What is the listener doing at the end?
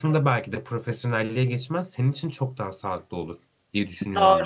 taking over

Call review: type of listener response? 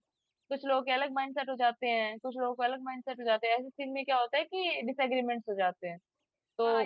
taking over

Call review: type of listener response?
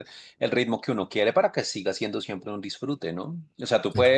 listening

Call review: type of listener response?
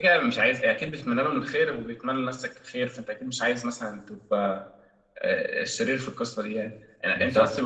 listening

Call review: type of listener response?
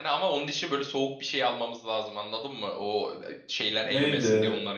taking over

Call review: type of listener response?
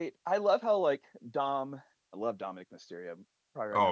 taking over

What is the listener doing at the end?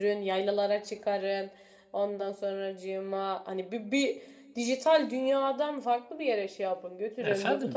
taking over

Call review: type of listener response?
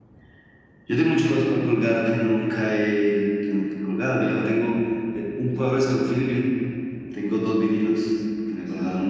taking over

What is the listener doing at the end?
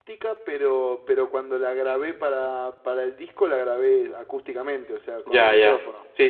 taking over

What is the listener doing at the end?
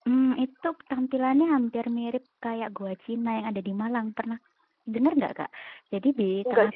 listening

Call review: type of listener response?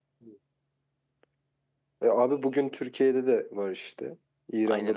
taking over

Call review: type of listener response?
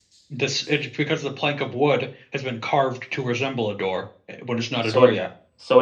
taking over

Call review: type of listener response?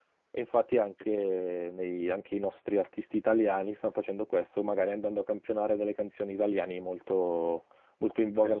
listening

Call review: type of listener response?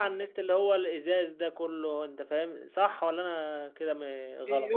taking over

